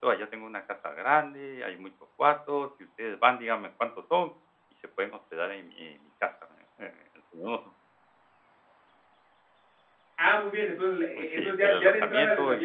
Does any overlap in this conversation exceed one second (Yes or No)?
Yes